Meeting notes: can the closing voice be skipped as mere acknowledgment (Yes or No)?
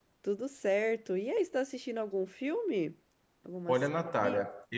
No